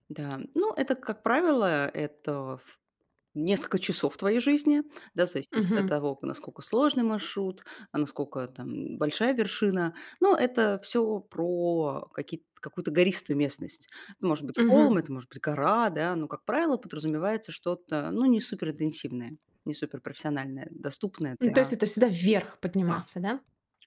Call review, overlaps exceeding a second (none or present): none